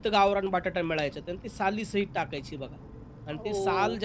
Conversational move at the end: listening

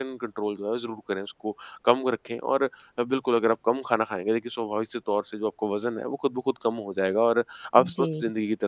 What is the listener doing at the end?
listening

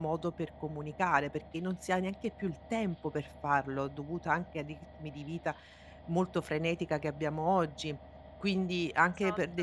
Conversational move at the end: listening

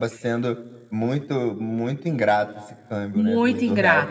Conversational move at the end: taking over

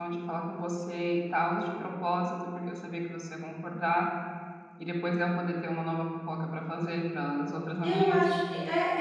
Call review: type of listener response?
taking over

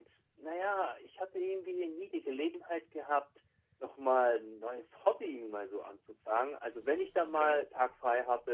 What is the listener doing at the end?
listening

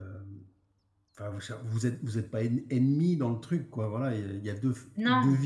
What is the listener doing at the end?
listening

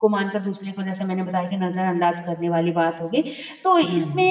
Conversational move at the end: listening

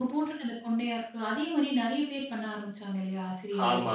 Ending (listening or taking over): taking over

